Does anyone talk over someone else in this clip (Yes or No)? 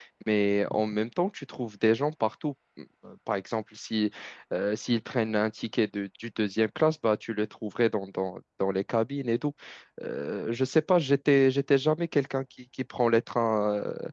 No